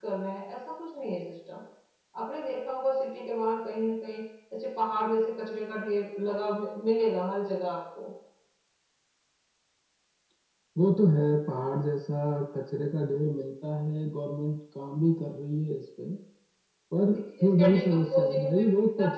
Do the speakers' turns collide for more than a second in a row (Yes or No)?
Yes